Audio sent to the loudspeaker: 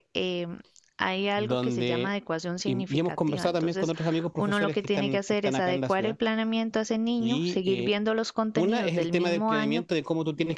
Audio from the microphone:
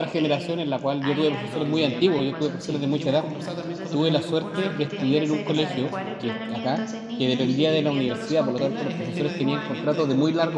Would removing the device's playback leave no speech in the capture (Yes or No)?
No